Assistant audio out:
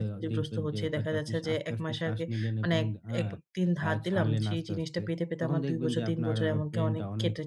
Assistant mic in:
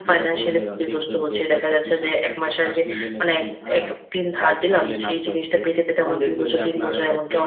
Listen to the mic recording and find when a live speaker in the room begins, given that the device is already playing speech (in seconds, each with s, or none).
none